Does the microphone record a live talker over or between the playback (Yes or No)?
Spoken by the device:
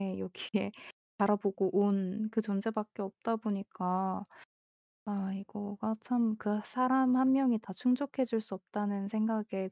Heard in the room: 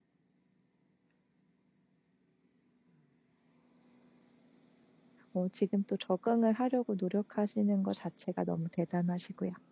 Yes